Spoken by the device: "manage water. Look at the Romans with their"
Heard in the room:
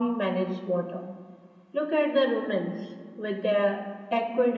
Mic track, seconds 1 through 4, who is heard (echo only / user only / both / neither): echo only